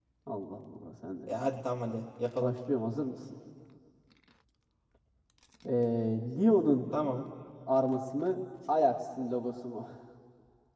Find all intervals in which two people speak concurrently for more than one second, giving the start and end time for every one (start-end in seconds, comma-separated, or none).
none